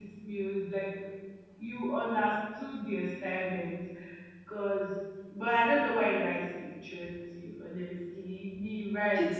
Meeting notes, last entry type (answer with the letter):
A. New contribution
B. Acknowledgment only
A